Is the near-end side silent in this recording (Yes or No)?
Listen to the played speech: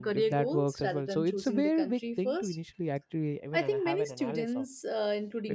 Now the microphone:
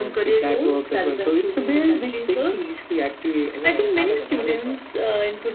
Yes